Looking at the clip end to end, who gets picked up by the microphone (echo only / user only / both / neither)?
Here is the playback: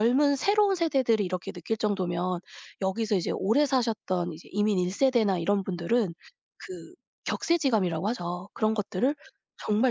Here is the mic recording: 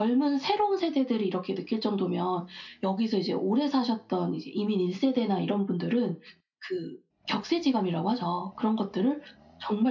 echo only